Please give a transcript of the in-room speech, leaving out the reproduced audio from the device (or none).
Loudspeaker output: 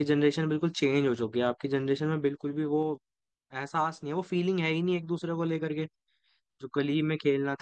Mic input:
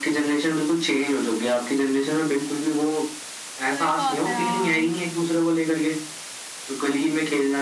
सही बात है हाँ